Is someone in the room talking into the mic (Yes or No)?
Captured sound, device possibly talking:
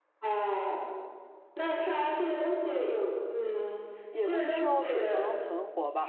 Yes